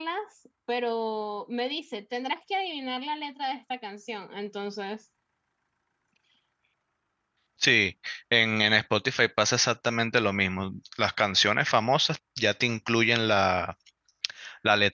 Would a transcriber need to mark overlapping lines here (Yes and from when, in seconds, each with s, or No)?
No